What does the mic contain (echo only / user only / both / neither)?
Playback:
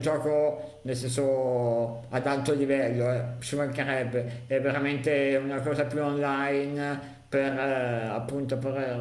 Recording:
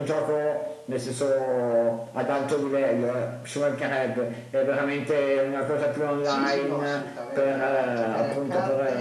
both